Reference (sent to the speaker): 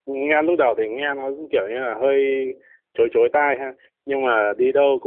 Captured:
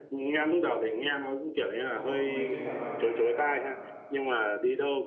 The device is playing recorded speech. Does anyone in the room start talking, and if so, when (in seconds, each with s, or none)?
1.9 s